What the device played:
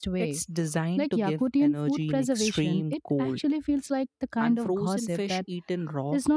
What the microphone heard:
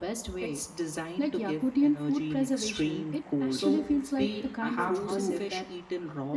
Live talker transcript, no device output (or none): So they have to